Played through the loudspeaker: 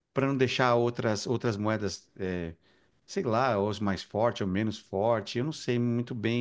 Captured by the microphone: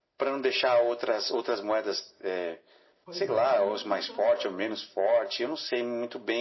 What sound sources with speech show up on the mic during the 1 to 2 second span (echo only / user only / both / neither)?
echo only